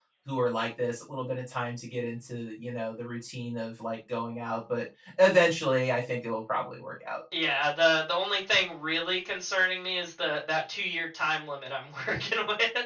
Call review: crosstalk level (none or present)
none